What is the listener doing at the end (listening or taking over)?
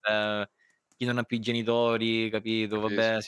listening